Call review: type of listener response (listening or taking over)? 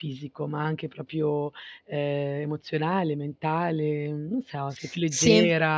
listening